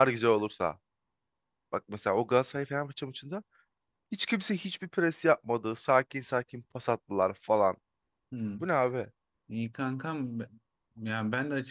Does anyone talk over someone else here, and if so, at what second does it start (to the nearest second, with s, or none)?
none